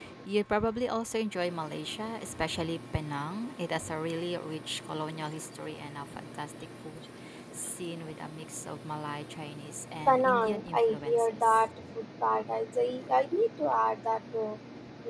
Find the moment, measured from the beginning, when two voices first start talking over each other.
10.1 s

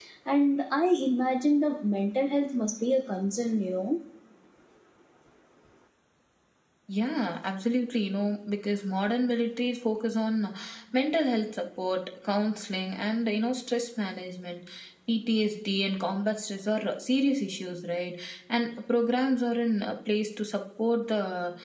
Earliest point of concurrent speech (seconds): none

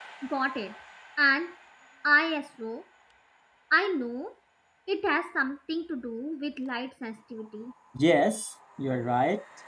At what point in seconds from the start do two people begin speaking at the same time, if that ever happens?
none

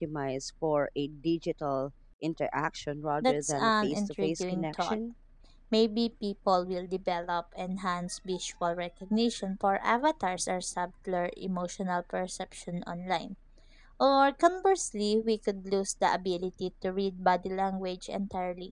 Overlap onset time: 3.2 s

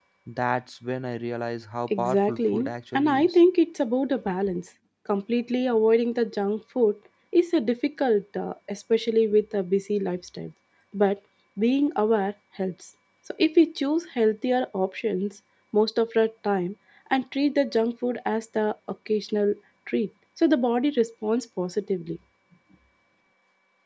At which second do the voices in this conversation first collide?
1.9 s

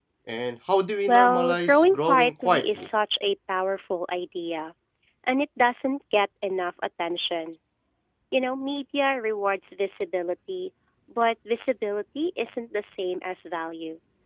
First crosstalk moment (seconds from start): 1.1 s

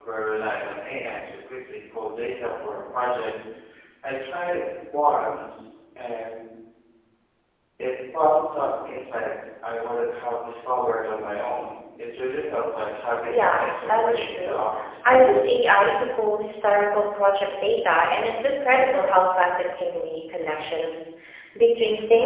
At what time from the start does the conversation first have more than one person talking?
13.3 s

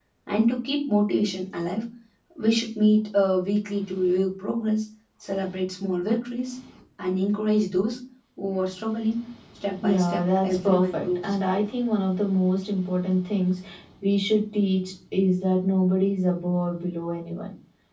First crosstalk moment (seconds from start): 9.8 s

